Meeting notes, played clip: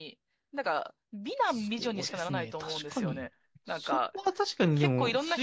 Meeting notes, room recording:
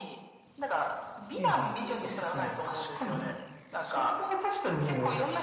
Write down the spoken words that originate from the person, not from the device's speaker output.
うん、うん。

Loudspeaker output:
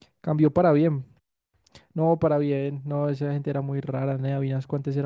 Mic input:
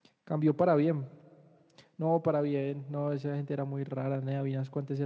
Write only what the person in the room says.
none

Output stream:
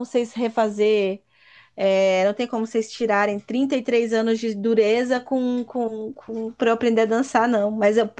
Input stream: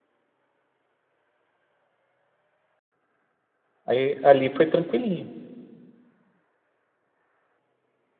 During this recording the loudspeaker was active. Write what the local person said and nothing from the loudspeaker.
Aí, ali foi tranquilinho.

